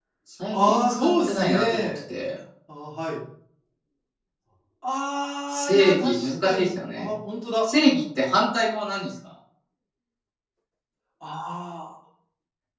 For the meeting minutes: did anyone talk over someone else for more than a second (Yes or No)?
Yes